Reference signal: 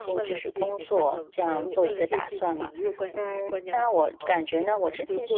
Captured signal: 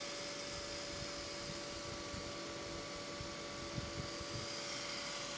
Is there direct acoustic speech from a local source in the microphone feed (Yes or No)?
No